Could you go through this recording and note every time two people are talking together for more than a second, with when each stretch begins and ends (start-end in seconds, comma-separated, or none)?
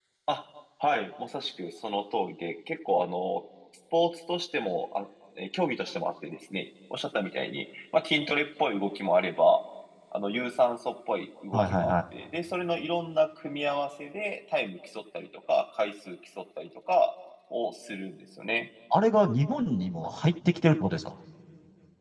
none